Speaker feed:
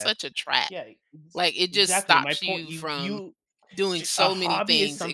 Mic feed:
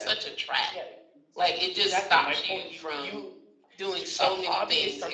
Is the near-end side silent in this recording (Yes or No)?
Yes